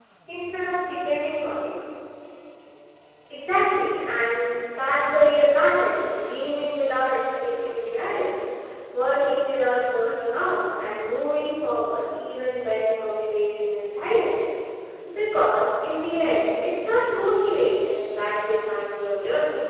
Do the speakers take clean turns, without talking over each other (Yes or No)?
Yes